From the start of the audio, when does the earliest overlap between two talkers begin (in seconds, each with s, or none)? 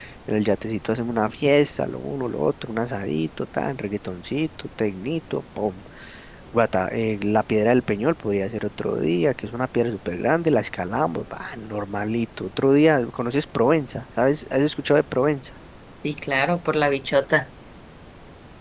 none